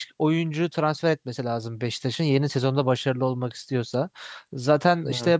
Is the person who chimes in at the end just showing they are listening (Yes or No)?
Yes